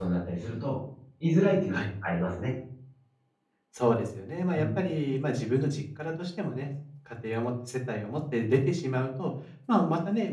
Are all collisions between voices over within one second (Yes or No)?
Yes